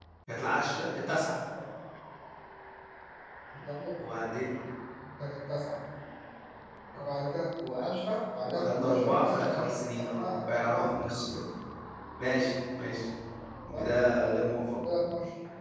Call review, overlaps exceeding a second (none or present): present